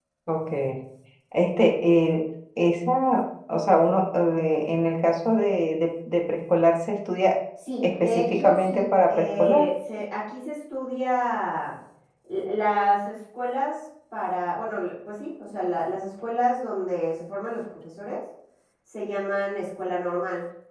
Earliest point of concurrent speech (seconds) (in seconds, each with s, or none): 7.8 s